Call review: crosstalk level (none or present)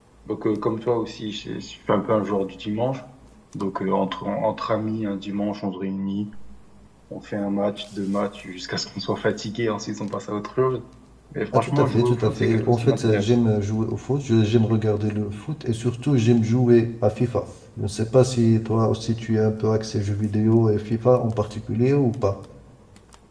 present